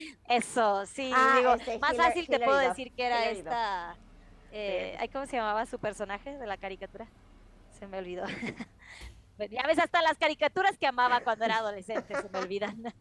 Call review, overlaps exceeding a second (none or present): present